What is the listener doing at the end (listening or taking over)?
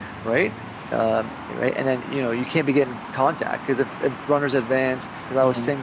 listening